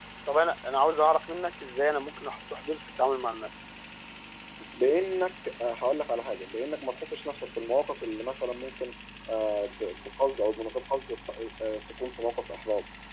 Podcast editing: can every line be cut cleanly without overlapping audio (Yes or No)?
Yes